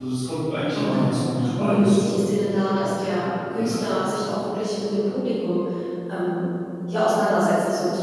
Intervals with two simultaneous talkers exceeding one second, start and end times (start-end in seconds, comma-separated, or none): 0.7-2.2